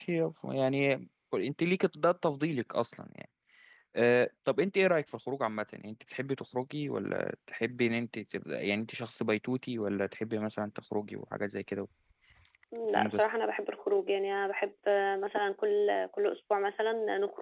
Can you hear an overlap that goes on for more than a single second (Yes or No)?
No